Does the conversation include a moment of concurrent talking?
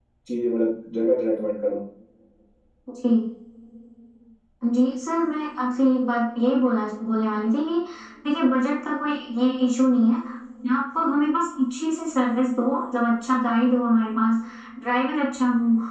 No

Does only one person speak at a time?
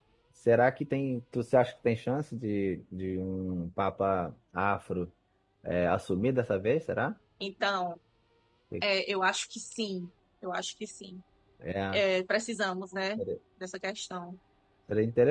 Yes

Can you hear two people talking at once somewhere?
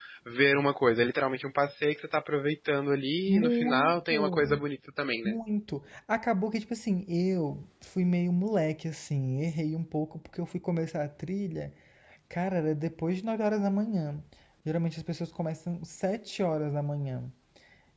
Yes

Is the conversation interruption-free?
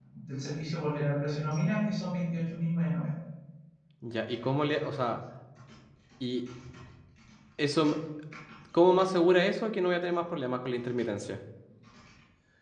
Yes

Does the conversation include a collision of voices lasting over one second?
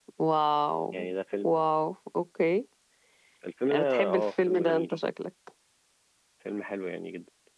Yes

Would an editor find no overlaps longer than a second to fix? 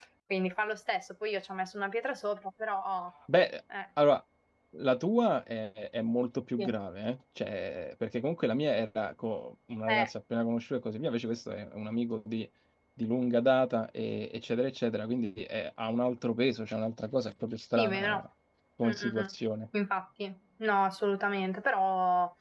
Yes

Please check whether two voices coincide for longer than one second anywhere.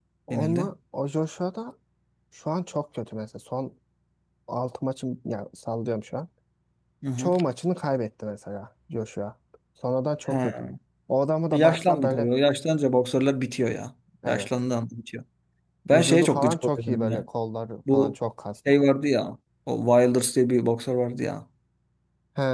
Yes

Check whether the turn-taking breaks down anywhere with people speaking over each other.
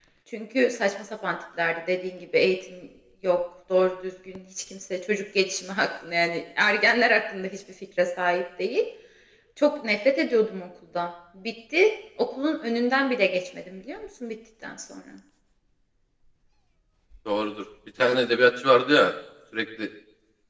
No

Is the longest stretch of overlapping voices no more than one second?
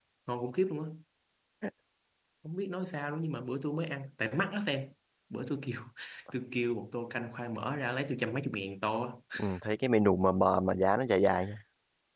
Yes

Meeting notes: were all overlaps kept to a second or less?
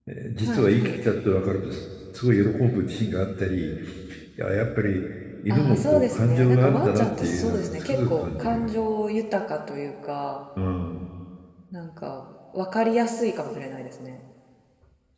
No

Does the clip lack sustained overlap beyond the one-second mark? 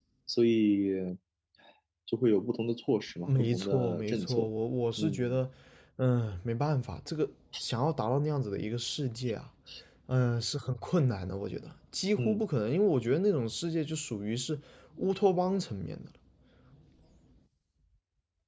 No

